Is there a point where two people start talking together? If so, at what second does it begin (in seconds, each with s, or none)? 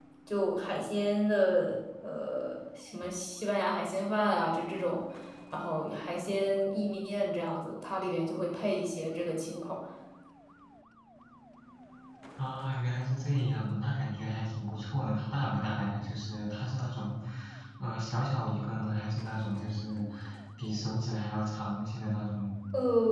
none